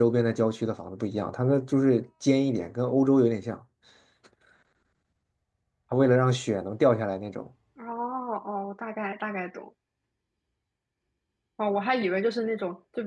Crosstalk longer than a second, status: none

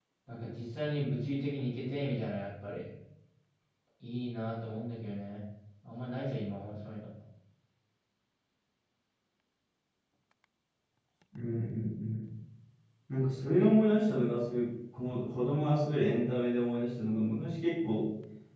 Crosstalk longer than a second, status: none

